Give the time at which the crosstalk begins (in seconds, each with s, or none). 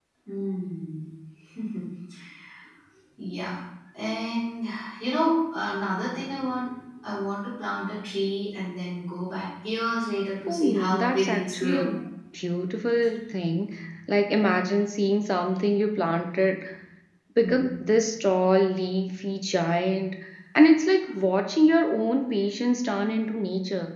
10.5 s